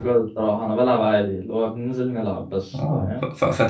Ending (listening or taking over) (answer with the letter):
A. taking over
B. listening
A